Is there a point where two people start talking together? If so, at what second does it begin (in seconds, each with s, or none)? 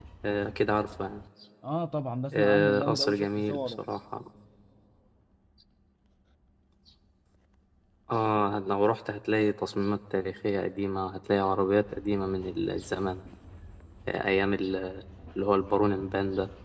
2.3 s